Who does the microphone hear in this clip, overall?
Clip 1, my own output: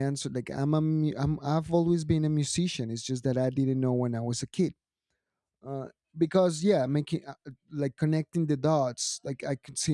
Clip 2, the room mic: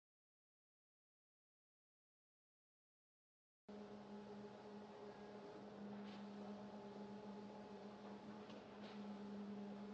neither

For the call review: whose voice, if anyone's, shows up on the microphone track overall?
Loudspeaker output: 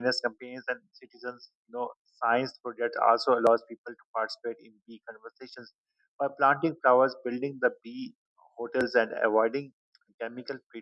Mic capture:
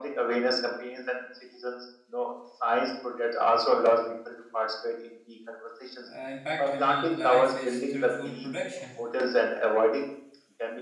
both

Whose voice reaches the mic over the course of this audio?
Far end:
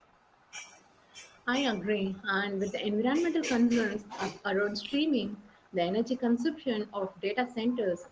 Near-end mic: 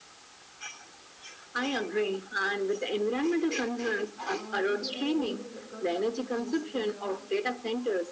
both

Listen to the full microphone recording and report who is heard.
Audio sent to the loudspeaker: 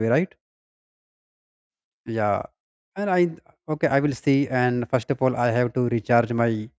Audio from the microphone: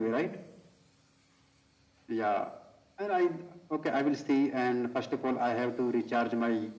echo only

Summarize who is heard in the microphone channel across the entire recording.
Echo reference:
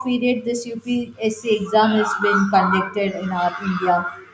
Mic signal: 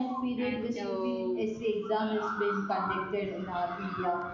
both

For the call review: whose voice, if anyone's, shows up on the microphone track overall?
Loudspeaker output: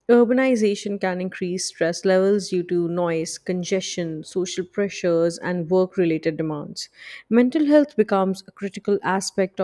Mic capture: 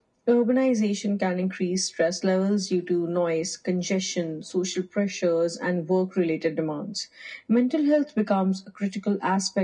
echo only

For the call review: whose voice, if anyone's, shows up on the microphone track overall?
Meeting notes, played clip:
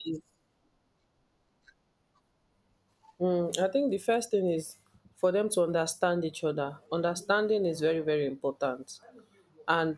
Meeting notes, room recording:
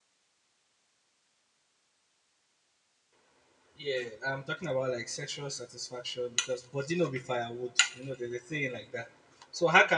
user only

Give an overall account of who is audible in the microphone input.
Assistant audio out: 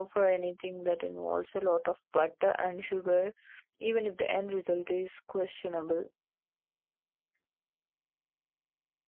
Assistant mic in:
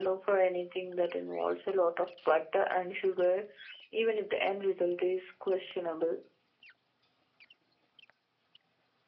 echo only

